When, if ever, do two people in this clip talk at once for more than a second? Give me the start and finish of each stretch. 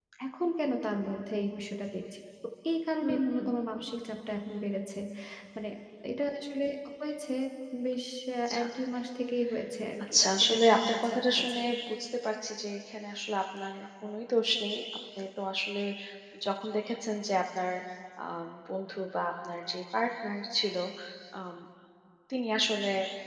10.1-11.6

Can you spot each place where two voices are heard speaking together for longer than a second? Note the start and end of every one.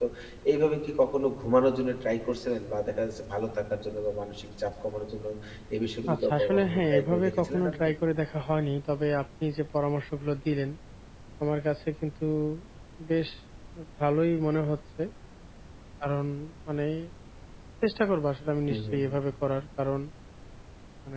6.1-7.9

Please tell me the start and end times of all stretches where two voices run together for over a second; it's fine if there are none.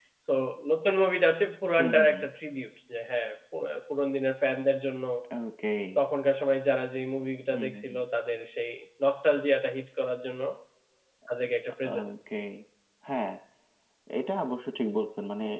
none

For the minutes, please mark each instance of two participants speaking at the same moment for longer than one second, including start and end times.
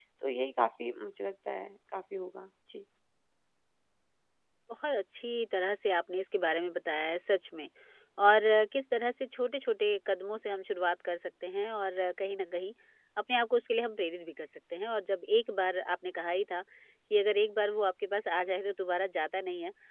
none

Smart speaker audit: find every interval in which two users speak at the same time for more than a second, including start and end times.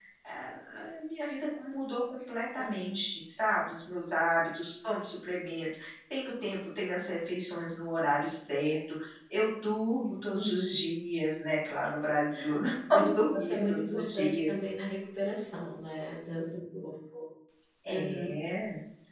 12.9-14.6

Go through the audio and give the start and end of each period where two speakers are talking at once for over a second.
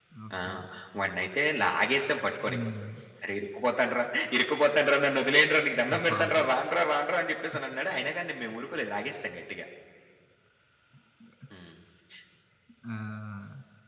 none

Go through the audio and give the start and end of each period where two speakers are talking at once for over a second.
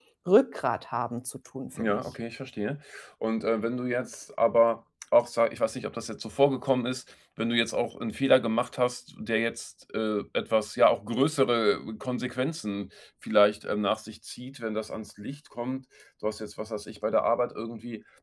none

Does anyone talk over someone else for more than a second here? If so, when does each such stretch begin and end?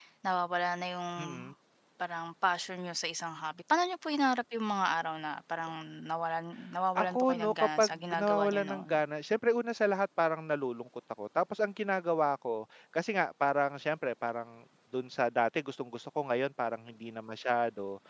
7.0-8.9

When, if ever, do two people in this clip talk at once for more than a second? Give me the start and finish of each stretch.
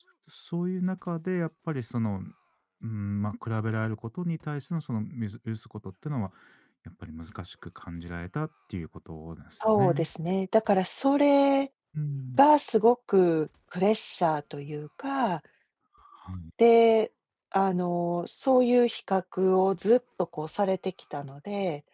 none

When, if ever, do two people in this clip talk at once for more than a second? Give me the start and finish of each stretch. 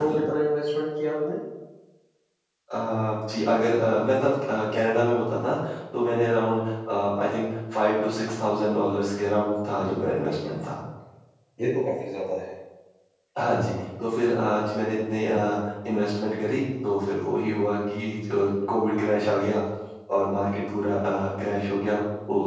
none

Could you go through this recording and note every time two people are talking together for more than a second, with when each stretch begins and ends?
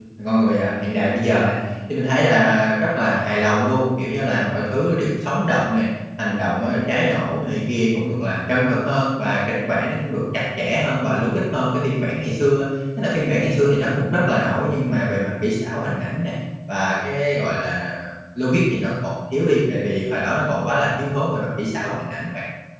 none

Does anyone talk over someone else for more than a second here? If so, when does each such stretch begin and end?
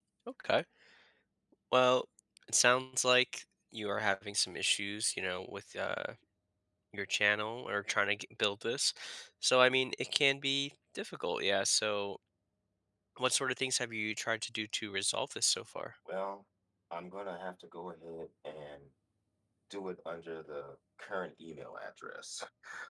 none

